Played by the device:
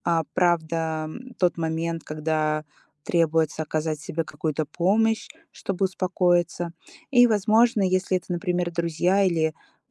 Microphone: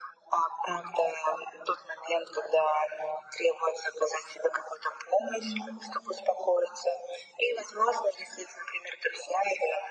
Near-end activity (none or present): present